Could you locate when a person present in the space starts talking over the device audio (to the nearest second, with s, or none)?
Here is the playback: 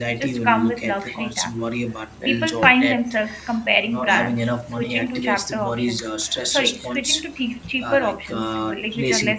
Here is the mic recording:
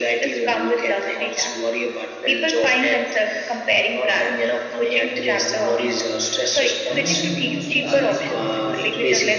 5 s